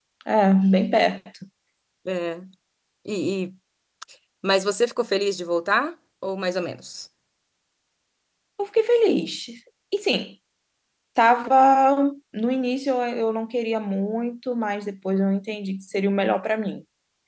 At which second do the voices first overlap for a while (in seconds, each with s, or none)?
none